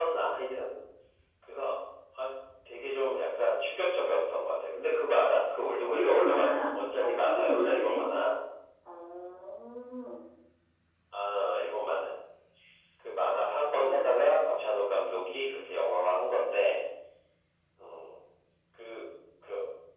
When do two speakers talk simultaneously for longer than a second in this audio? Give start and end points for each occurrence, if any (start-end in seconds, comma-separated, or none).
5.9-8.0